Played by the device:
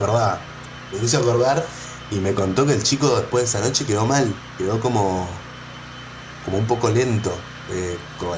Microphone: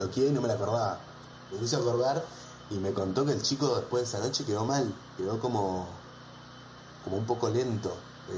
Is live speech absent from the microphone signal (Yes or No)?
Yes